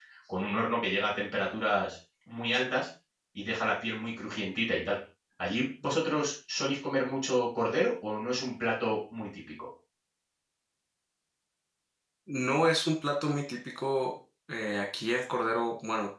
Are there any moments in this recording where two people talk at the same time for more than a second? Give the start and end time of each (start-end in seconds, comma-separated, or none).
none